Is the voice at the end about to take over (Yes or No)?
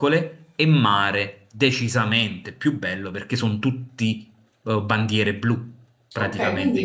Yes